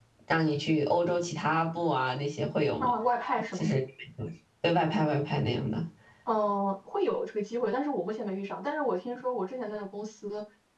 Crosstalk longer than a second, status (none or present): none